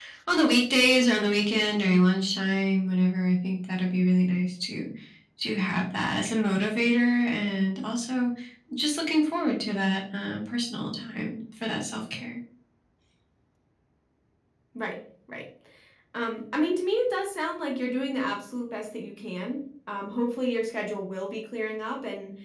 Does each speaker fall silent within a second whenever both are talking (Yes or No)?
Yes